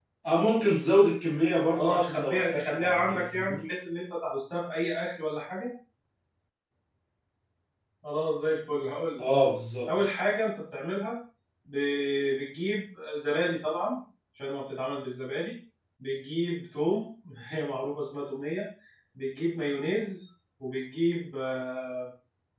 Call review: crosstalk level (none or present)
present